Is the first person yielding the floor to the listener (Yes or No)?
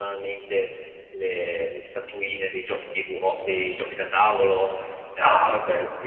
Yes